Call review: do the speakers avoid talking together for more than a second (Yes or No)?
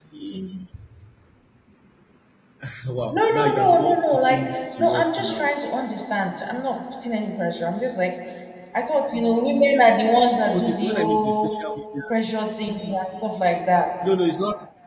No